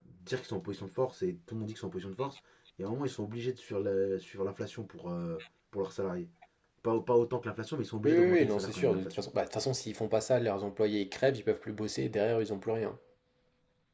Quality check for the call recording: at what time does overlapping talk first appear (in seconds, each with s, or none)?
8.0 s